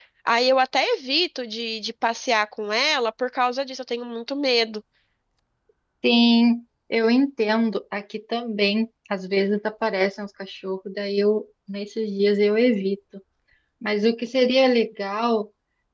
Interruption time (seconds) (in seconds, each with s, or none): none